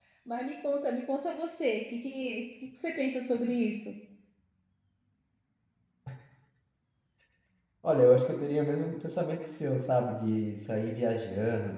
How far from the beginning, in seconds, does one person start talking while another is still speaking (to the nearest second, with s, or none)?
none